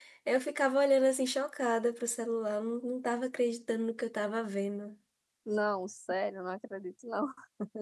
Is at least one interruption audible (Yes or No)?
No